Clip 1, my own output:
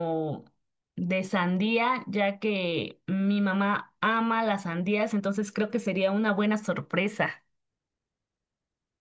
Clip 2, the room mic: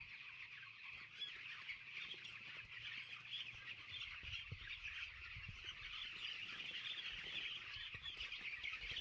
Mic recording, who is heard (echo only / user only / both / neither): neither